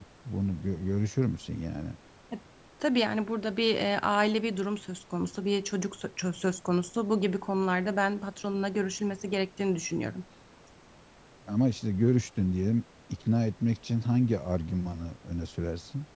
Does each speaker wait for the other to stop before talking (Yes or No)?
Yes